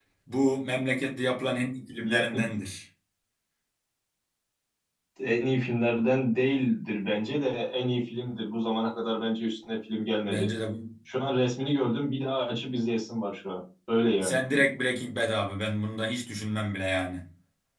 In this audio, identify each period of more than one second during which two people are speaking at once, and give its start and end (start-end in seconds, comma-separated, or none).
none